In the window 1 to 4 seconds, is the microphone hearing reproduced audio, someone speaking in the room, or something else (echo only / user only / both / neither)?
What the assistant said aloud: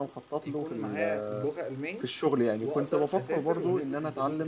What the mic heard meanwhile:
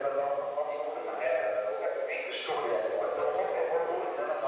echo only